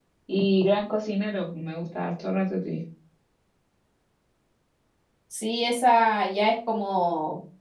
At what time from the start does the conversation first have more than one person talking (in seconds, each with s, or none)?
none